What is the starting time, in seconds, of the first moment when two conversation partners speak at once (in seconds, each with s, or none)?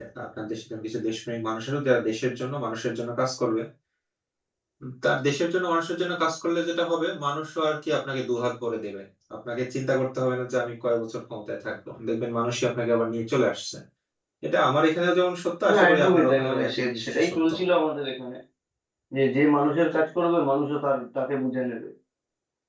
15.6 s